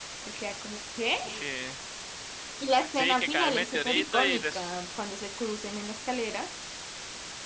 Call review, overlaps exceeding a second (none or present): present